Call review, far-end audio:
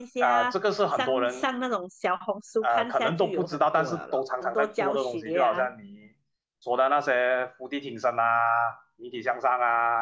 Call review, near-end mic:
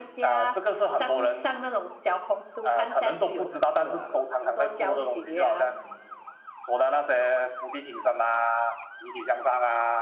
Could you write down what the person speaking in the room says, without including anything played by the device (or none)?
none